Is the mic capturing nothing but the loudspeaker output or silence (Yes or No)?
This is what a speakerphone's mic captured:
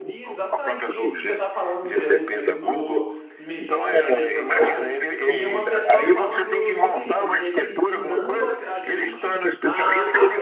No